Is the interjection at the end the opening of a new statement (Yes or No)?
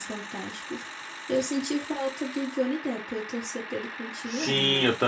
Yes